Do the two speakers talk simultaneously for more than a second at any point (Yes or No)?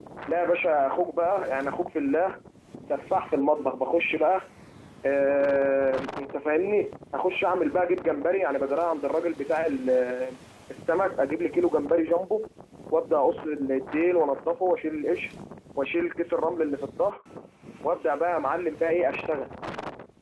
No